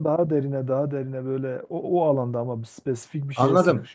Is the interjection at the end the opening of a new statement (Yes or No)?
Yes